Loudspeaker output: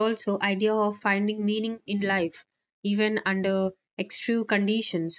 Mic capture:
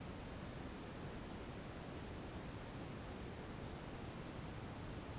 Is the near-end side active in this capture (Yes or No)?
No